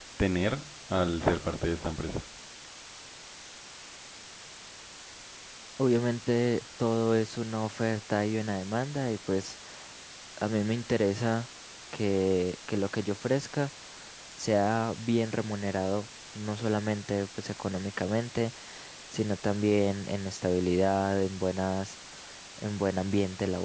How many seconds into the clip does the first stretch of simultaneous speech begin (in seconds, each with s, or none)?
none